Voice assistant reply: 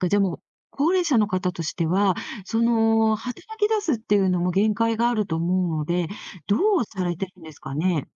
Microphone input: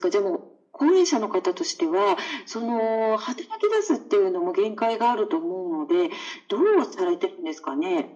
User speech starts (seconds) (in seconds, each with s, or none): none